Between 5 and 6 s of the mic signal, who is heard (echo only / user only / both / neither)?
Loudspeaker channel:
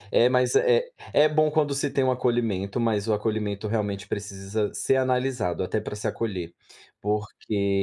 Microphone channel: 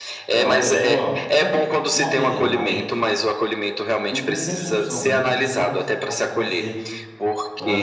both